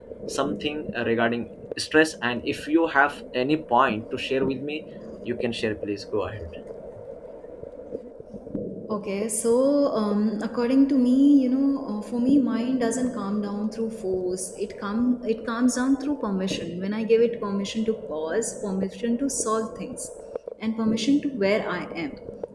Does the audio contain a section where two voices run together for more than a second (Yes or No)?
No